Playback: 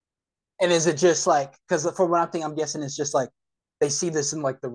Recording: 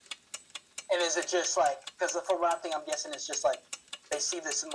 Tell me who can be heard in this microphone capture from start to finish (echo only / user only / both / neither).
echo only